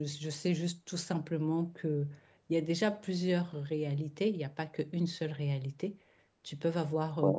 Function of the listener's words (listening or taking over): listening